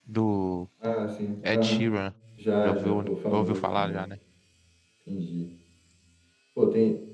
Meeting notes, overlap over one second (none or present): present